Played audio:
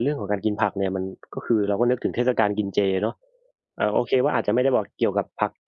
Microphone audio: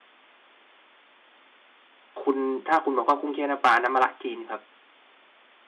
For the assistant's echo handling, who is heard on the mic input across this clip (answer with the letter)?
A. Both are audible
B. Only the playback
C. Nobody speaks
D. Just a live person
D